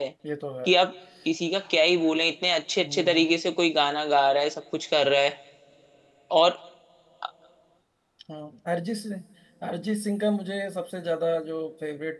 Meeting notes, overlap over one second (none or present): none